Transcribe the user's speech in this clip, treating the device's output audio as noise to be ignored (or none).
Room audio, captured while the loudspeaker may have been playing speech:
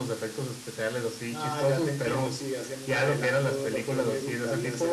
none